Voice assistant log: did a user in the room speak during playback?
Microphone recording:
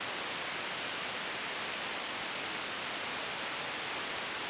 No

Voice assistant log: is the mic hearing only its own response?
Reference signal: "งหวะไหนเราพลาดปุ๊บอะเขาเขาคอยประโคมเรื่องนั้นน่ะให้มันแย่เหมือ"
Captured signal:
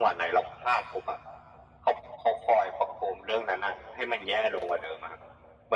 Yes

